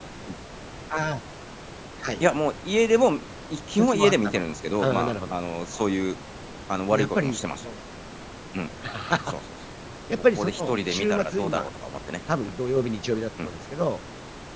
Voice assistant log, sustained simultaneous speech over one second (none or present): present